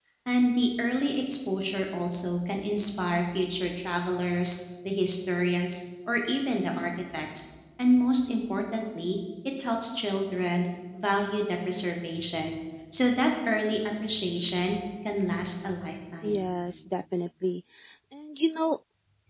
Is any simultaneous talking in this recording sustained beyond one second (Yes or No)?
No